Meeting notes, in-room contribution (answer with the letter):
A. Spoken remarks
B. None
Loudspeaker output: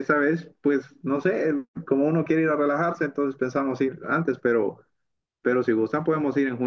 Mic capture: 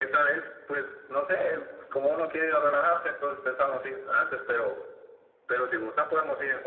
B